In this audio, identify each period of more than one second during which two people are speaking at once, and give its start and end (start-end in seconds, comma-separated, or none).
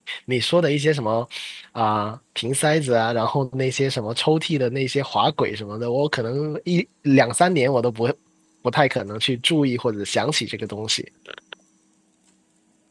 none